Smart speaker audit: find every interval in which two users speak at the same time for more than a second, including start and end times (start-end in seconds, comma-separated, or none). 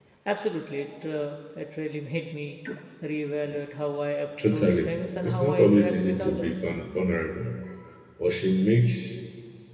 4.5-6.7